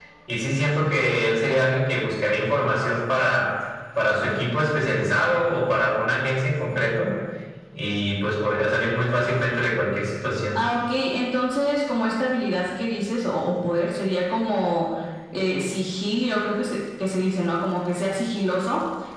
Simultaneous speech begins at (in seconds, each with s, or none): none